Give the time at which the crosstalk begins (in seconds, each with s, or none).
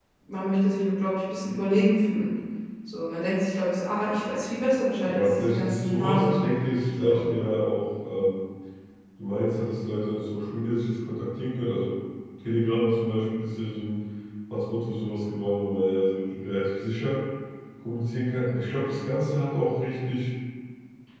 5.1 s